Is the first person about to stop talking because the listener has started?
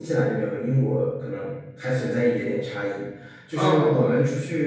No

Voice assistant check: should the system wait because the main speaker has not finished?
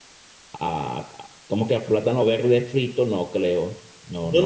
No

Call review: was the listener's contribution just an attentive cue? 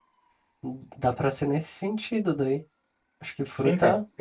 No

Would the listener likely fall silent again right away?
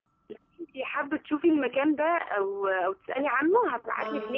Yes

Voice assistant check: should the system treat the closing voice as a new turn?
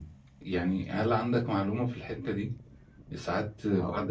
No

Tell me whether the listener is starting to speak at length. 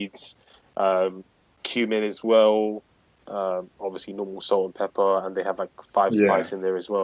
No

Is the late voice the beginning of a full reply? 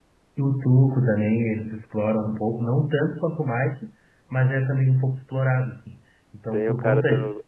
Yes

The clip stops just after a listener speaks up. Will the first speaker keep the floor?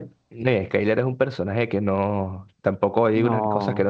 Yes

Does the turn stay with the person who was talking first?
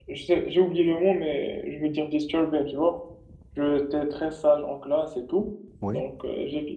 Yes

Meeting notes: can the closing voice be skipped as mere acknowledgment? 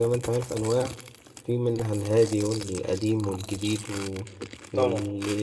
Yes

